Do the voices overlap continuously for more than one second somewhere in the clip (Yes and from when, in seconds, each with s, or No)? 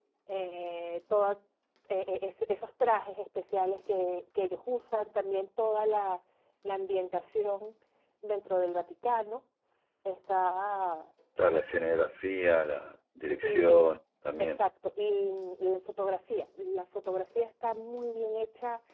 No